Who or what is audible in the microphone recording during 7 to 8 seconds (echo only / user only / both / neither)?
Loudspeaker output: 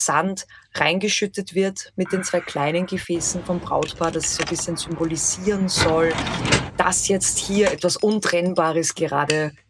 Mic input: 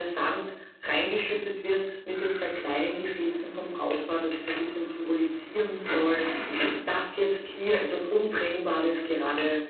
echo only